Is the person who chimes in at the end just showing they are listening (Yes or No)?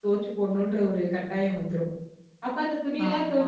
Yes